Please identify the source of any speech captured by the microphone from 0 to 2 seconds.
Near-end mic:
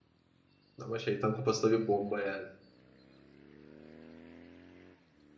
user only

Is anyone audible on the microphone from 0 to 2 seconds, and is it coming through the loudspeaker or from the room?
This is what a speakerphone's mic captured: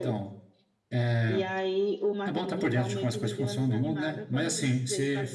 echo only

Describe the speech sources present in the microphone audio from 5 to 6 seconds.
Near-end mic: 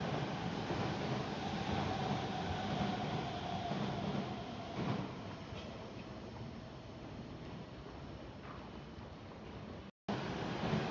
neither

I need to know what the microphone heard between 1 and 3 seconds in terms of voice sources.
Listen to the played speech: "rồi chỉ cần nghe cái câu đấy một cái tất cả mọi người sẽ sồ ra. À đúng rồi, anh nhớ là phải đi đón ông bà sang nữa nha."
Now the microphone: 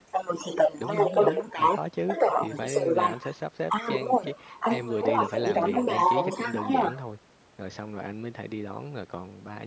both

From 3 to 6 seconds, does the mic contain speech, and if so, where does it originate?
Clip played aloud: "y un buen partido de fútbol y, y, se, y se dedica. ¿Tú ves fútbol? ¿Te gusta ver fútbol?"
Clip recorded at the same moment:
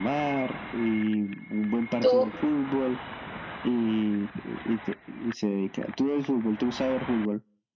echo only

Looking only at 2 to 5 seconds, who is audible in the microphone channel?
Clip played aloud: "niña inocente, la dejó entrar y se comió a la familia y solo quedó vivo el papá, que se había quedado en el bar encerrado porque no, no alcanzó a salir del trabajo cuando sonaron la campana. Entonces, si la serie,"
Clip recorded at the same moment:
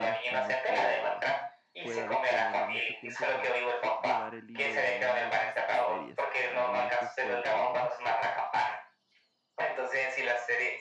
both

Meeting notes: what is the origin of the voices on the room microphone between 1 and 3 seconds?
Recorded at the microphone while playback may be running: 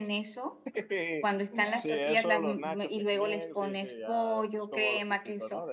both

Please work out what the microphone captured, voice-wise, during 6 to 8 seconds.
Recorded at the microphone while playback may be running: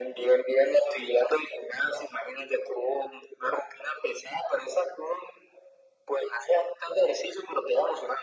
echo only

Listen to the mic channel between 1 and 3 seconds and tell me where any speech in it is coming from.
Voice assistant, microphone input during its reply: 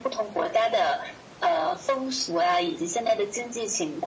echo only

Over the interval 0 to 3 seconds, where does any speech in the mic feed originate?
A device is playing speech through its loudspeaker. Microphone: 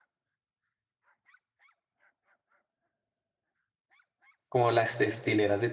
neither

